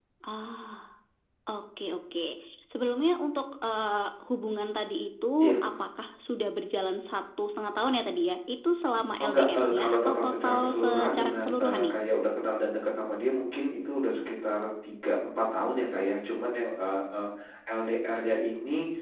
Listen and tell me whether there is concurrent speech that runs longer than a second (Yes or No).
Yes